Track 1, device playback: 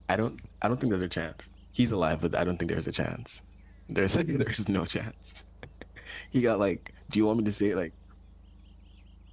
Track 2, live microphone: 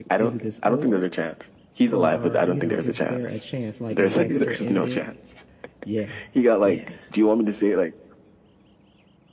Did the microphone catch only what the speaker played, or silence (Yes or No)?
No